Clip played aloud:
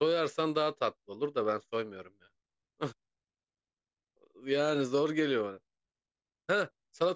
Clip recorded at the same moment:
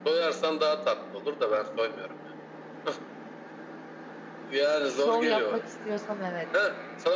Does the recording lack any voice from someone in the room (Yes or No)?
No